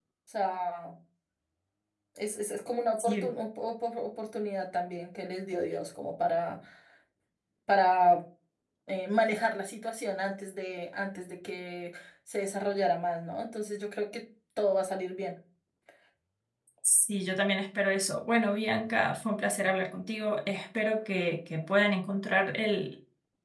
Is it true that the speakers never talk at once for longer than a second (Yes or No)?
Yes